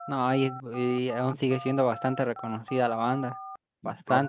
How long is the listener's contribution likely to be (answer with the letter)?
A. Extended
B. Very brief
A